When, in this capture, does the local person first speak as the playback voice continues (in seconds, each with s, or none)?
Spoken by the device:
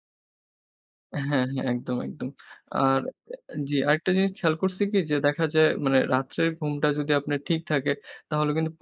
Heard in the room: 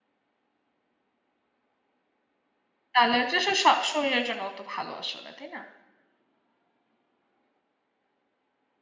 3.0 s